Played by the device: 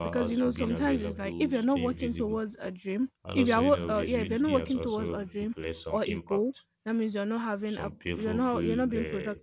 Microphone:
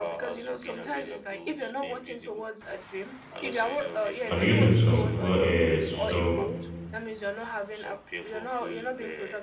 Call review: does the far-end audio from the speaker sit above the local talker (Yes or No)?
No